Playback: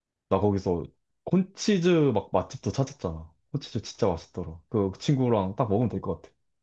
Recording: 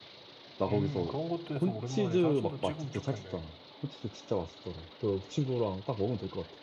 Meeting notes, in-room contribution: present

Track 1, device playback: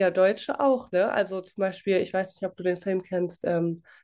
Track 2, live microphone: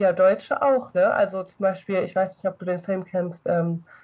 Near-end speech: none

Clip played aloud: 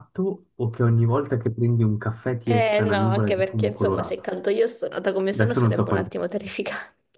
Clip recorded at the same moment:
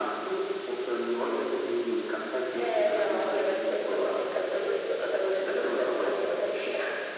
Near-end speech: none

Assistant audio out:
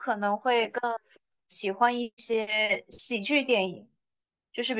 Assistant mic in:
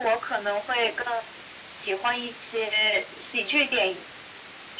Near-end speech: none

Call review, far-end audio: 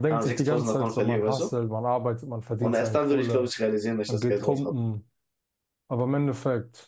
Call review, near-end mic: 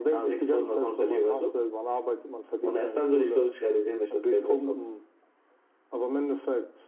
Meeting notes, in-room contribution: none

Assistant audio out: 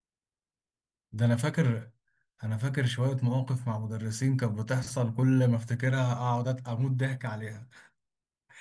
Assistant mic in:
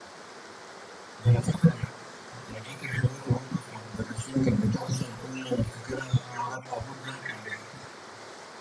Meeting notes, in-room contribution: none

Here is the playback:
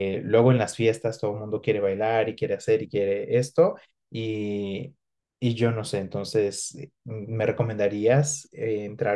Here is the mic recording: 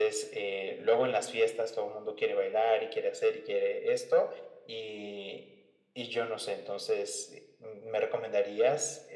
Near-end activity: none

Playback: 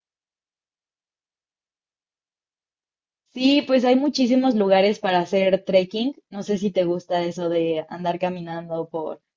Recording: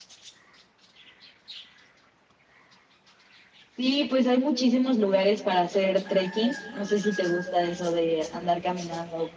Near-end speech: none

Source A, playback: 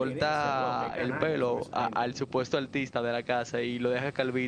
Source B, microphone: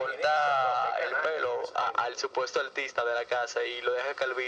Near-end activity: none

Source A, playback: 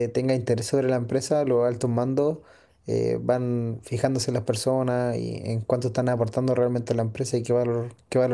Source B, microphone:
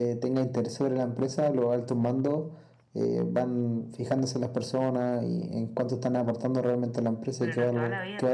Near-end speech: present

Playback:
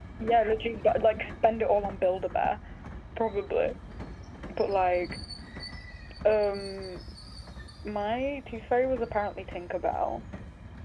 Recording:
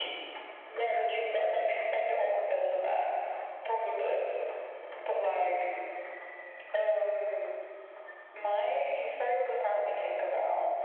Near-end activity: none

